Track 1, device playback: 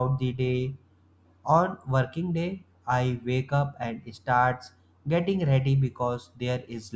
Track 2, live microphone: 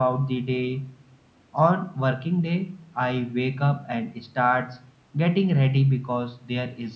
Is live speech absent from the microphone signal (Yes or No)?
Yes